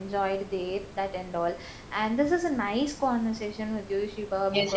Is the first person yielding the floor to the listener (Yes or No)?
Yes